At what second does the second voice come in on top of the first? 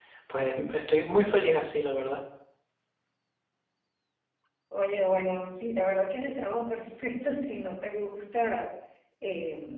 none

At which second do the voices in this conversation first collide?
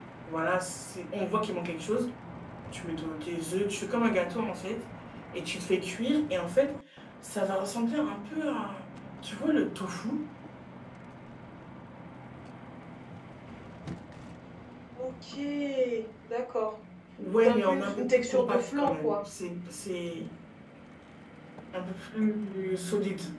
17.3 s

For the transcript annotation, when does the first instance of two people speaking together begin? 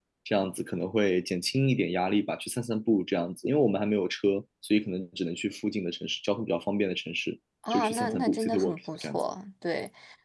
7.6 s

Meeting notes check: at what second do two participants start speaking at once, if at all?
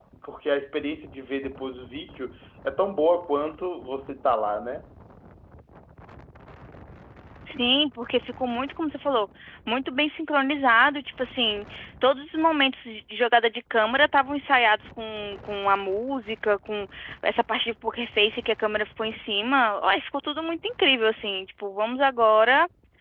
none

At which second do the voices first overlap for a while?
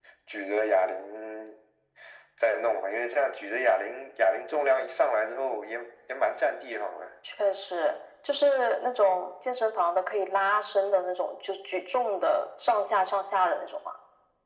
none

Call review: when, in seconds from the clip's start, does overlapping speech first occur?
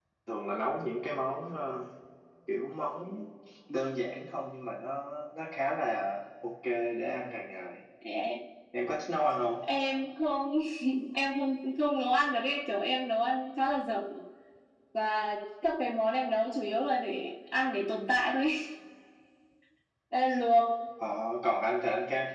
none

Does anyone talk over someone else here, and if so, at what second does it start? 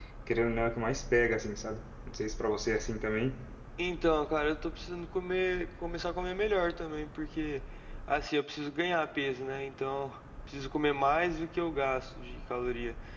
none

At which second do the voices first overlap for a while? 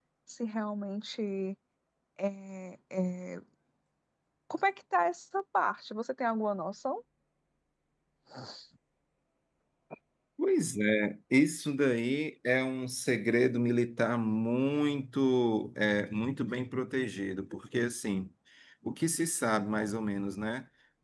none

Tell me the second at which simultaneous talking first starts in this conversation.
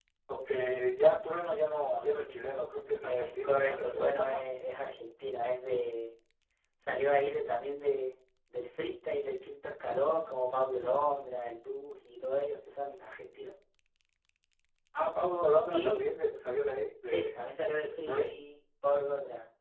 3.0 s

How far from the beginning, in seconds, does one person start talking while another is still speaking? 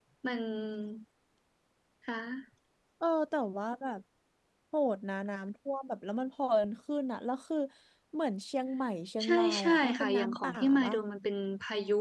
9.2 s

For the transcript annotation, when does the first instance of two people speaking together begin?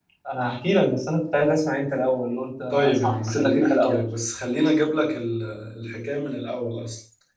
2.7 s

